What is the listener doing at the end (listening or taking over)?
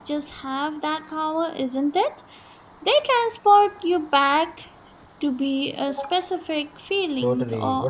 taking over